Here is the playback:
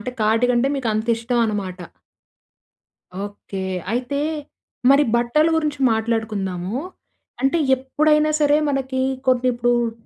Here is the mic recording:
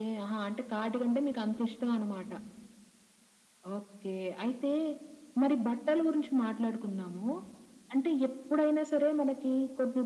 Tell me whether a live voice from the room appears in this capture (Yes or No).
No